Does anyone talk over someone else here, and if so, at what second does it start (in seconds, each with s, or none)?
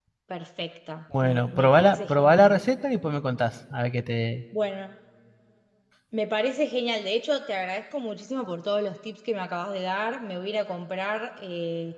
1.2 s